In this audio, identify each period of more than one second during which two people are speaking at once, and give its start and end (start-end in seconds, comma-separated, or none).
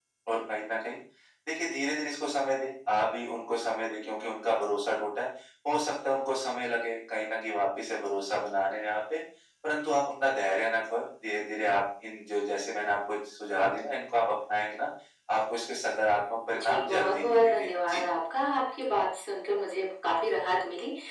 16.5-18.0